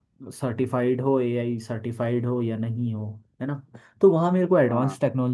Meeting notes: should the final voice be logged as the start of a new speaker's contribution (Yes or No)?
No